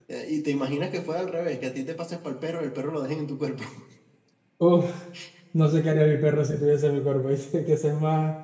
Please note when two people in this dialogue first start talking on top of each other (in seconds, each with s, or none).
none